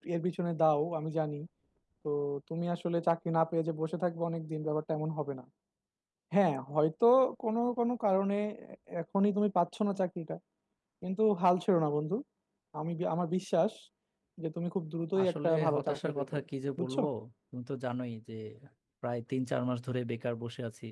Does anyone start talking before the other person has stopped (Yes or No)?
Yes